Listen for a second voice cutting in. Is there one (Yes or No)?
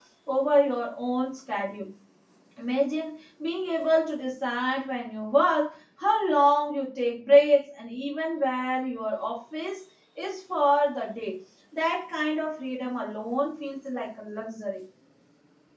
No